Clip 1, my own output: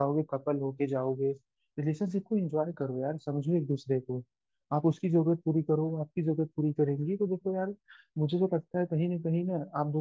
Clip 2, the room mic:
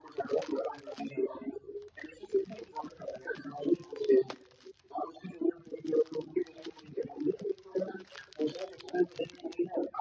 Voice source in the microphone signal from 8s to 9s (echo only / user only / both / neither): echo only